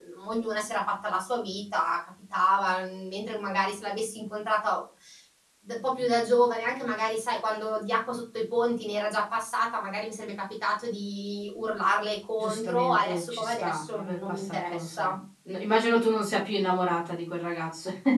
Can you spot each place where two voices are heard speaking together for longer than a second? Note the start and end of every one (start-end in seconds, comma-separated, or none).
12.4-15.1